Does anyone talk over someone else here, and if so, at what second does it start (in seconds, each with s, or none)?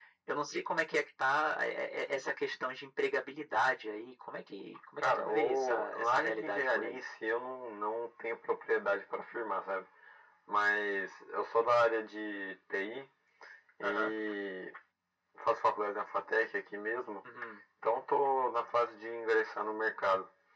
5.0 s